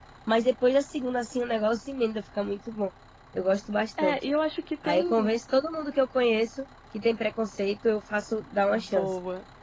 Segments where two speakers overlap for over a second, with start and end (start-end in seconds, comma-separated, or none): none